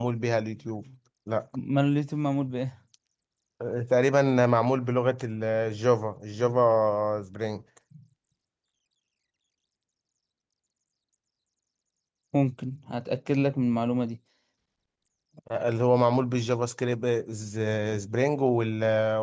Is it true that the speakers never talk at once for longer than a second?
Yes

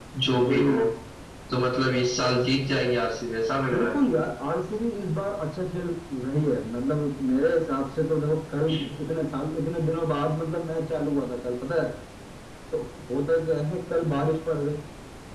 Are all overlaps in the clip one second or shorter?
Yes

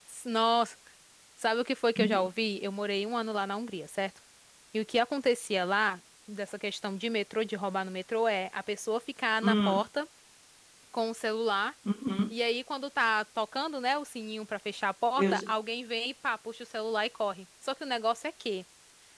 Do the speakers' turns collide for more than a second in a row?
No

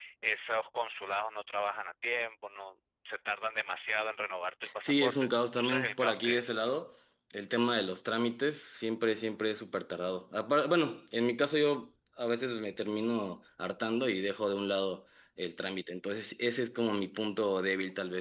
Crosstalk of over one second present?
Yes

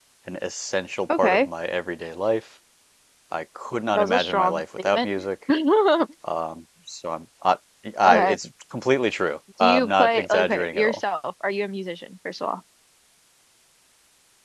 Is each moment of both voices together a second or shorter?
No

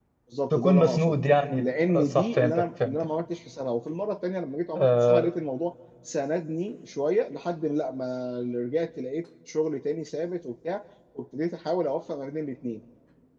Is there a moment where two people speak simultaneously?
Yes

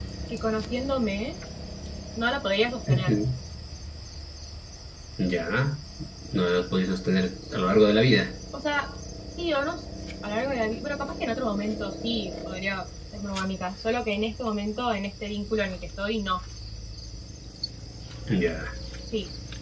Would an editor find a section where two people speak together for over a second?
No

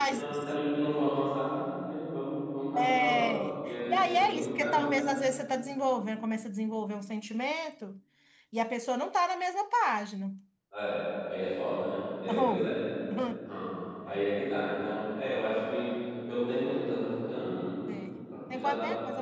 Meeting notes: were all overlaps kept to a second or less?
No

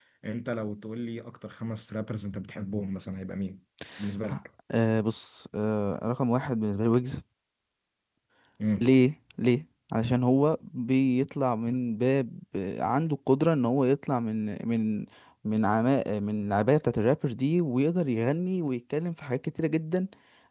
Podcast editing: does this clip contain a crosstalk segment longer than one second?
No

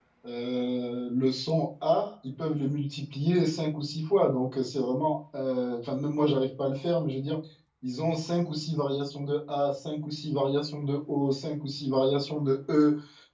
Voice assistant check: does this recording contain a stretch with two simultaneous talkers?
No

